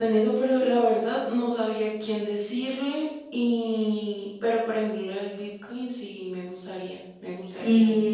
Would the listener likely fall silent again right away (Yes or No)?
No